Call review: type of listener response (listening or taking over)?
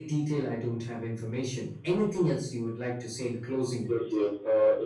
taking over